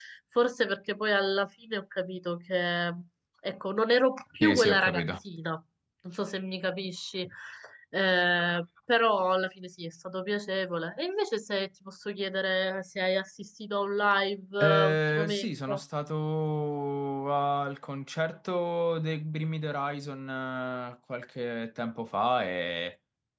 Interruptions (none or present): present